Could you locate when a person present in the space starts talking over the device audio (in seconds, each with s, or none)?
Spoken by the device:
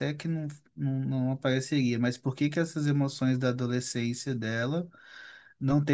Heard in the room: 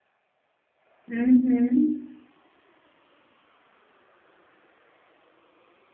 1.1 s